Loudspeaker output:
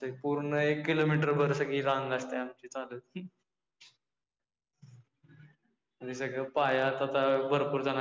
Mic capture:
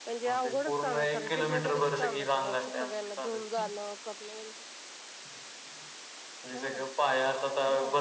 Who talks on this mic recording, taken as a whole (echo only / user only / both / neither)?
both